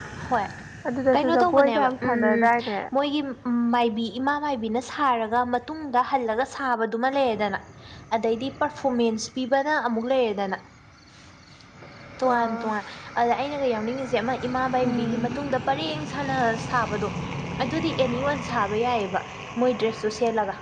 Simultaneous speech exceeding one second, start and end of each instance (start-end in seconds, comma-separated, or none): 1.1-2.5